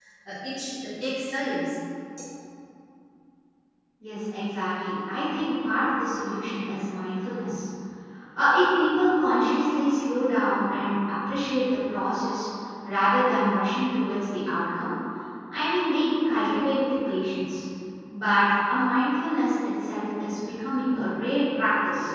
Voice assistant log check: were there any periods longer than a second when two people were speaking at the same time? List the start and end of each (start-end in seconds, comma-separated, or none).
none